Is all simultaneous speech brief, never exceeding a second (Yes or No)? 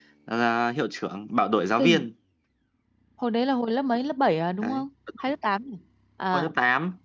Yes